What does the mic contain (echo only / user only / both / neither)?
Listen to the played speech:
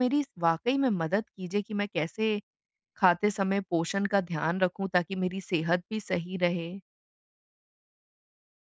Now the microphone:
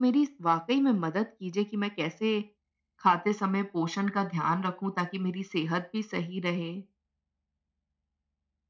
echo only